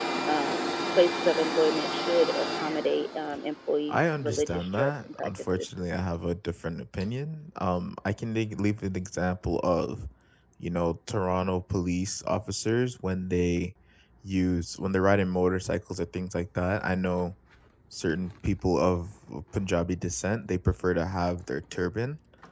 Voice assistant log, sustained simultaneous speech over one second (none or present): present